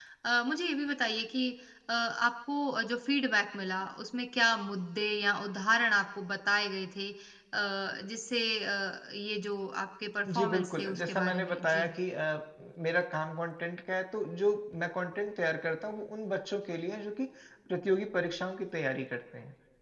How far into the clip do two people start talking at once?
10.3 s

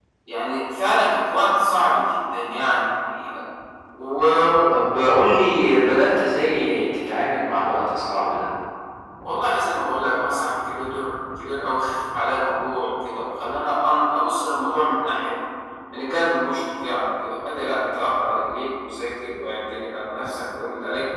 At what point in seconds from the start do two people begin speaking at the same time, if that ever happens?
none

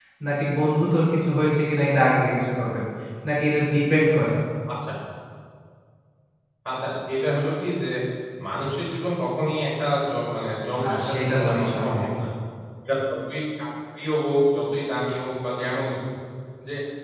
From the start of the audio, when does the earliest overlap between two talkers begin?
10.8 s

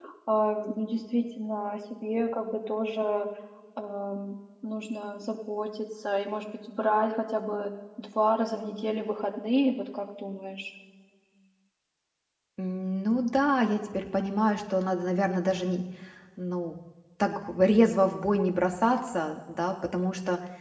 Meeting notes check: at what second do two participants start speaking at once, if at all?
none

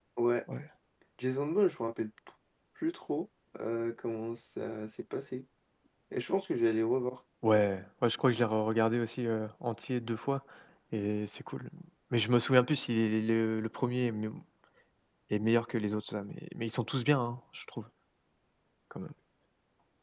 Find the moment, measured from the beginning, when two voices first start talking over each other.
none

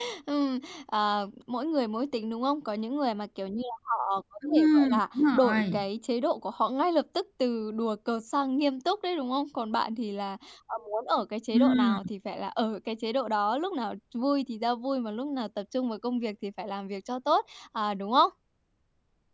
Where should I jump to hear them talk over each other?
4.5 s

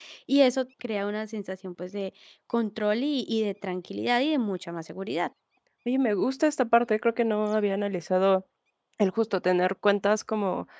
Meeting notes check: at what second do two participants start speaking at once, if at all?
none

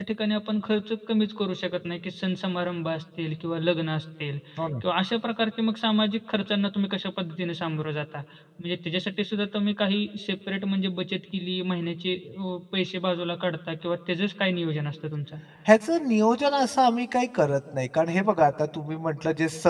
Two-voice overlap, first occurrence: none

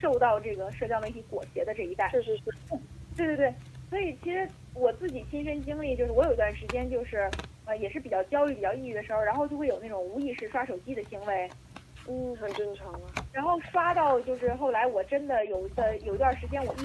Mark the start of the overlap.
none

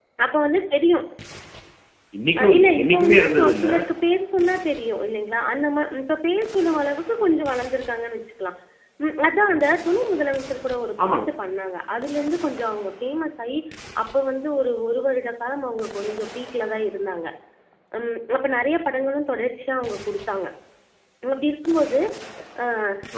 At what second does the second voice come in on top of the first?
2.4 s

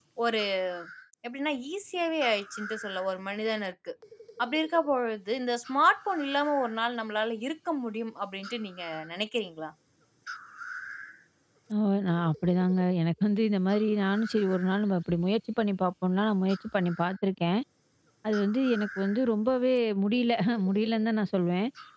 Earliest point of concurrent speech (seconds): none

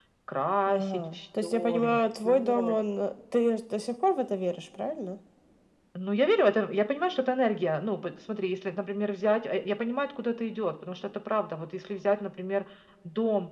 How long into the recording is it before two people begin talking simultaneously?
0.7 s

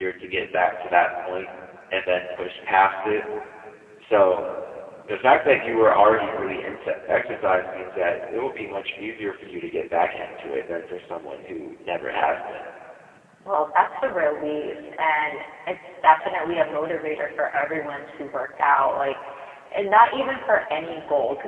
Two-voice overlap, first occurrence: none

